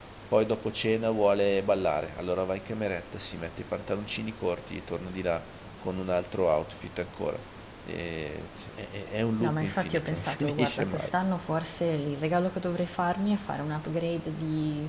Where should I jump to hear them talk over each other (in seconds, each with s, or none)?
9.4 s